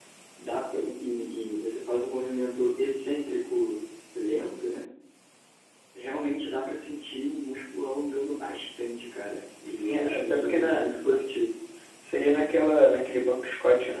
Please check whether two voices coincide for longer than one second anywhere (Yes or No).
Yes